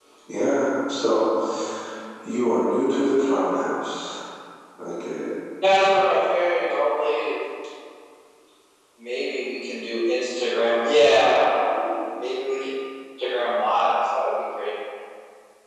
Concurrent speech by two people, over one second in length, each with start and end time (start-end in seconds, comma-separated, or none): none